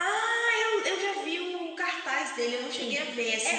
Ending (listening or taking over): taking over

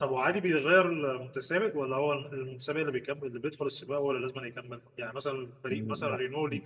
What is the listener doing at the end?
listening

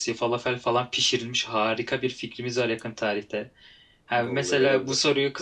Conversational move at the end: listening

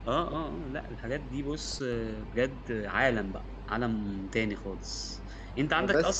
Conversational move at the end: listening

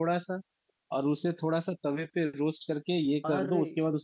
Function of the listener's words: listening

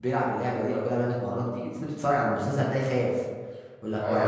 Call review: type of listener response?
taking over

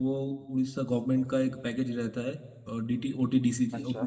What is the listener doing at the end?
listening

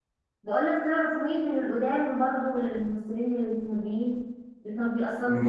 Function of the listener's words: taking over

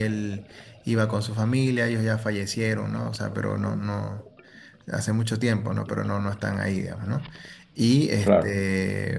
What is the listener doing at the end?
listening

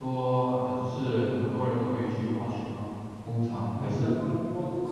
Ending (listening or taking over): taking over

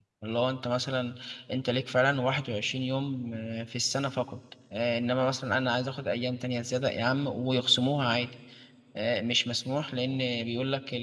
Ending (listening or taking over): listening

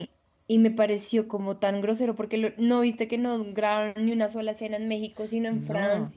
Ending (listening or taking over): taking over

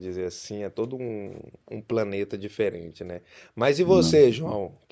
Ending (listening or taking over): listening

